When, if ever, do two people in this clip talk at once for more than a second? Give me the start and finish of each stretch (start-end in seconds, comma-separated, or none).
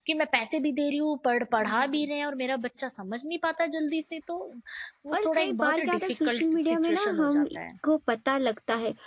5.1-7.4